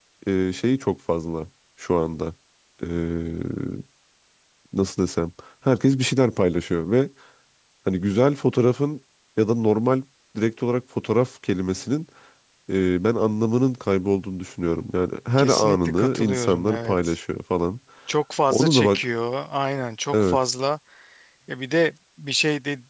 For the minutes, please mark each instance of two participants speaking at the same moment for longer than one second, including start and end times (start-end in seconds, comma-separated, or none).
15.4-17.2